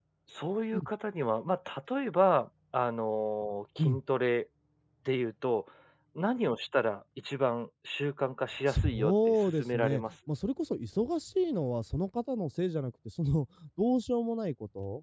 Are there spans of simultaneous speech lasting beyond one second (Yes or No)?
Yes